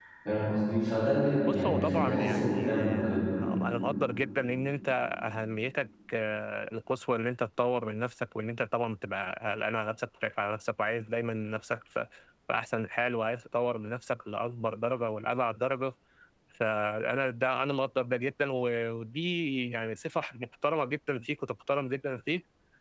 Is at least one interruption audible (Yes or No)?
Yes